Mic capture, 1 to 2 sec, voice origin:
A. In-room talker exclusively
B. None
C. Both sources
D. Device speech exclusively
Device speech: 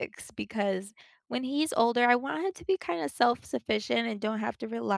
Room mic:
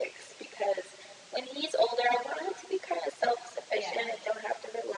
D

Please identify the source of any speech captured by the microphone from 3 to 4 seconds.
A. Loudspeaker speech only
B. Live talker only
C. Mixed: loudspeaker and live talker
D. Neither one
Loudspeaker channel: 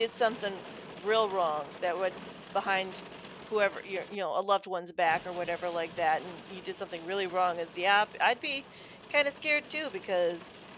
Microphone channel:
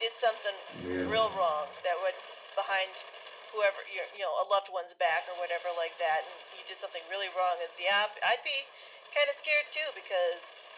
A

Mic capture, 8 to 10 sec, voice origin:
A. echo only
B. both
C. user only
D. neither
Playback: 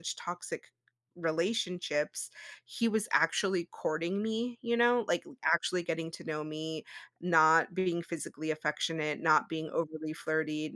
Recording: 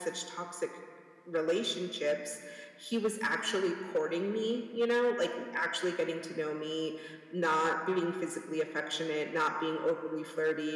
A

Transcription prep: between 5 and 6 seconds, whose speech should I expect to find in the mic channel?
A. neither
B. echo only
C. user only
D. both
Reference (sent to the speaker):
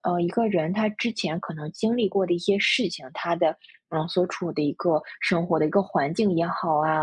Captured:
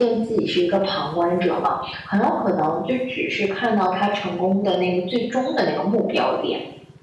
C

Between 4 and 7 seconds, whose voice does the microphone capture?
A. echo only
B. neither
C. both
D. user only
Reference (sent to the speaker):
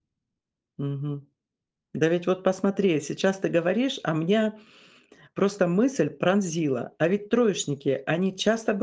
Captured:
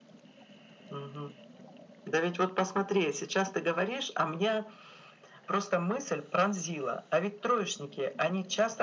A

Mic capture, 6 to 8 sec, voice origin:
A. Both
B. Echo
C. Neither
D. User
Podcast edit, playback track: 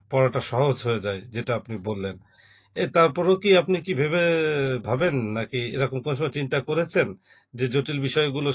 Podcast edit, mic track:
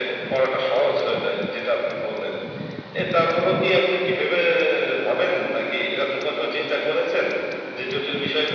B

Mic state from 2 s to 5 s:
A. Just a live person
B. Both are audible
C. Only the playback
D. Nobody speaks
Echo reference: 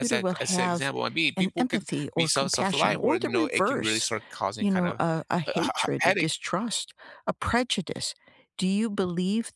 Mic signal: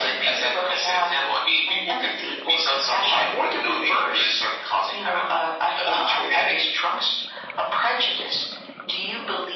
C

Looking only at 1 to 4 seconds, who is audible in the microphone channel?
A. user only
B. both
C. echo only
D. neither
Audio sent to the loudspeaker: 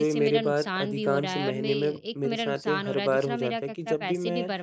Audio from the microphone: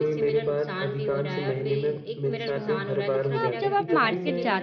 B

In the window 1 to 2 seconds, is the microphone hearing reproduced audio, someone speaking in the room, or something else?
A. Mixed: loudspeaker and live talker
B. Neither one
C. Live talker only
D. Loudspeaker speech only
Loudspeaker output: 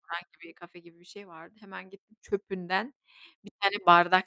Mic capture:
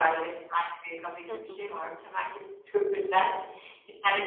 A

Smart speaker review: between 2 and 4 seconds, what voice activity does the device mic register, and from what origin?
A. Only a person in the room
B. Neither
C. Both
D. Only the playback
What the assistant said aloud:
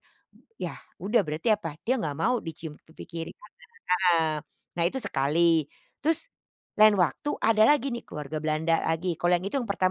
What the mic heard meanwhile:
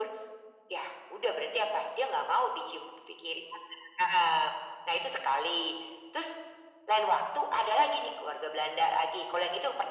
D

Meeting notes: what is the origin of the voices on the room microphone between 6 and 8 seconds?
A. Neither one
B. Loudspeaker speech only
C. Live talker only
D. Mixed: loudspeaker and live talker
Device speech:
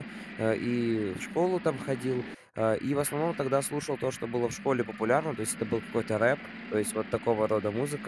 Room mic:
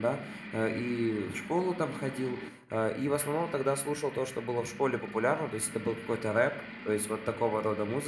B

